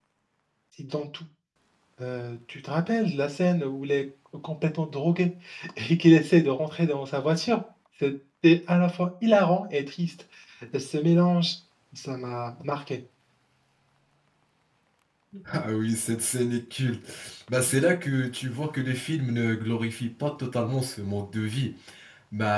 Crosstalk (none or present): none